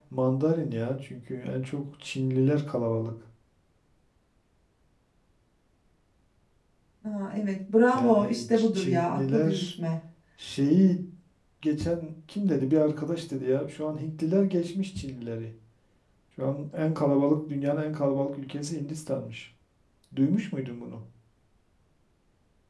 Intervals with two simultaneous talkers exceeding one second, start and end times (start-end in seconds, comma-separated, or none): 7.9-9.7